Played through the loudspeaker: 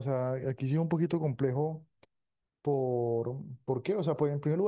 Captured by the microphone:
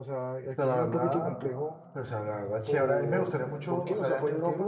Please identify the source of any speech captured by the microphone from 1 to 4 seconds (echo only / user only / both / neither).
both